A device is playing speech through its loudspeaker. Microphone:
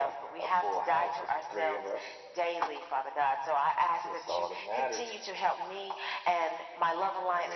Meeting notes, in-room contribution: none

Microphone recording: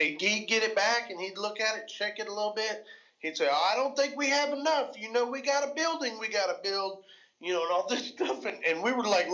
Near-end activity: none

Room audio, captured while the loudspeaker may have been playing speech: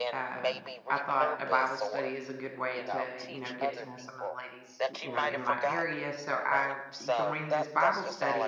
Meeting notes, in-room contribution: present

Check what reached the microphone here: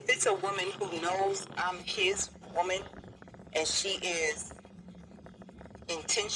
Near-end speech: none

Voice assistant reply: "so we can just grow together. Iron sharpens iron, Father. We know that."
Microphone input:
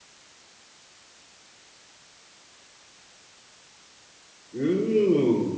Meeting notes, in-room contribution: present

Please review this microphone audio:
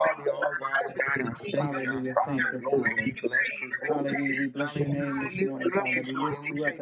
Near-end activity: present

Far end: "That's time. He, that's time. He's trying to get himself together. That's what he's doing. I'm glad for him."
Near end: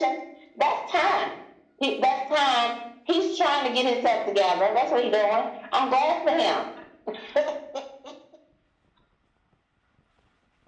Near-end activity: none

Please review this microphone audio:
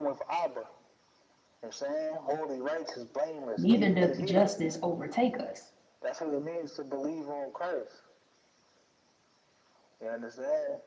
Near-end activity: present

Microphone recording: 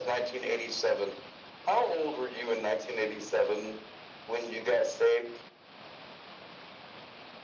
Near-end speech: none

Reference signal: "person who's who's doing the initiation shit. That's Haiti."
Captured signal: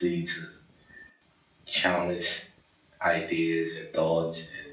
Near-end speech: present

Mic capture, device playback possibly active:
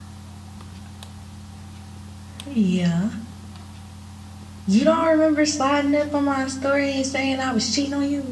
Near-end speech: present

